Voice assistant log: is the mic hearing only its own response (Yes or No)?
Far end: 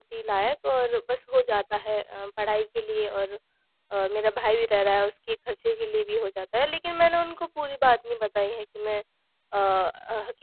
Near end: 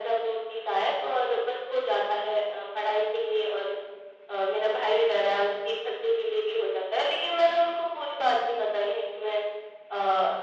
Yes